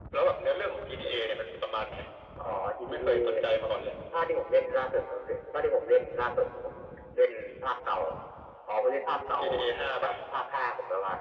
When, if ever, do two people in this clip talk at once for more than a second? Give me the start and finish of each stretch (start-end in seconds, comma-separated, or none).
none